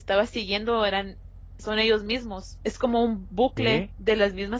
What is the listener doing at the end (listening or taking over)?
listening